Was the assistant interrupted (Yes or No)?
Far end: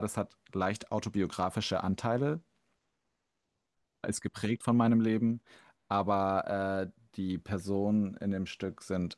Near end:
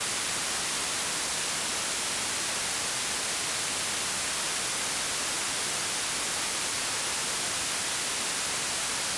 No